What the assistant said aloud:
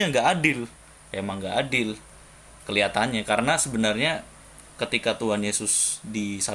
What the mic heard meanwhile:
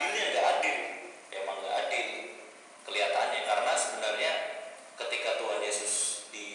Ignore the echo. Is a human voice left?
No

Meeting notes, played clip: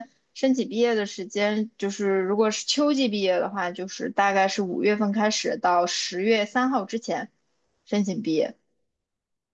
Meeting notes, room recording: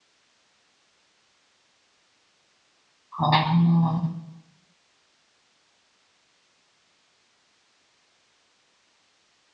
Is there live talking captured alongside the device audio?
Yes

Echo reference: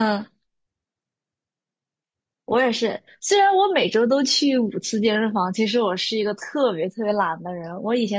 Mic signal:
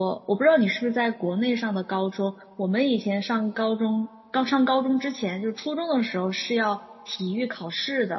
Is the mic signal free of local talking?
No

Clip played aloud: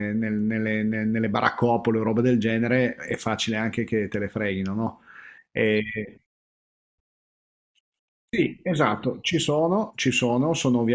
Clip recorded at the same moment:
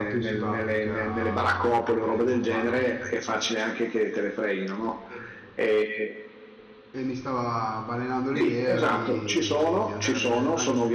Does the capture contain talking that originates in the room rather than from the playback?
Yes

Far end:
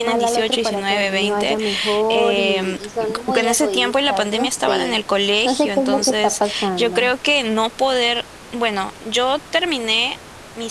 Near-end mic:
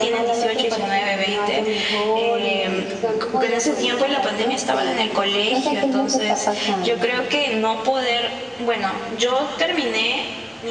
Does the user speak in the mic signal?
No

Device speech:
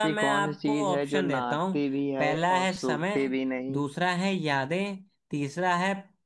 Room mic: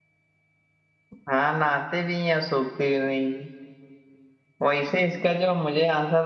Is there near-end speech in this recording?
Yes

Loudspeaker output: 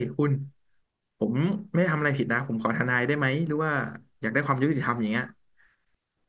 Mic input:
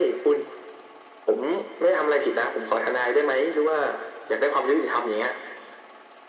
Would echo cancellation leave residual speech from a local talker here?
No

